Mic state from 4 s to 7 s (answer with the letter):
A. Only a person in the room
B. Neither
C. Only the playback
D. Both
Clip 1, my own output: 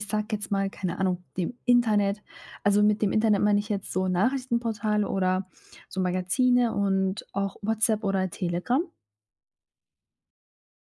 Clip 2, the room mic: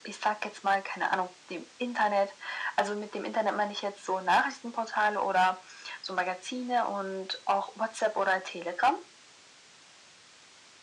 C